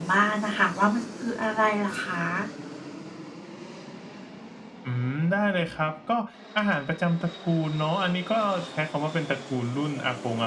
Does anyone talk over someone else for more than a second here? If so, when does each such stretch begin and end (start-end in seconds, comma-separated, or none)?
none